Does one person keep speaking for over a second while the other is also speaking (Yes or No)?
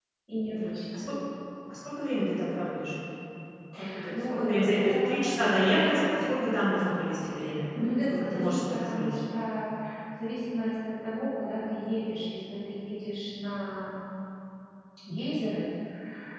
Yes